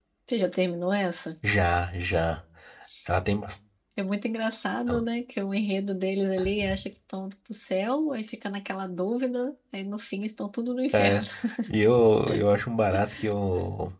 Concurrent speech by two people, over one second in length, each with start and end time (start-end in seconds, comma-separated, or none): none